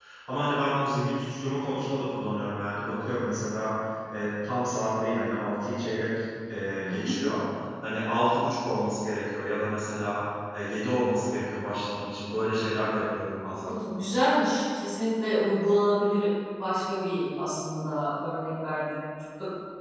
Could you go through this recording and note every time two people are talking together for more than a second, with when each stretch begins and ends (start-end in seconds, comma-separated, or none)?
none